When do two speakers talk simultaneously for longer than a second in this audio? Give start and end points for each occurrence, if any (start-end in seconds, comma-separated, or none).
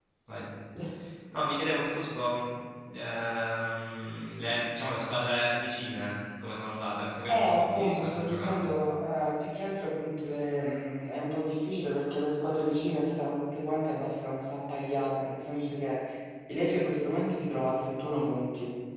7.3-8.8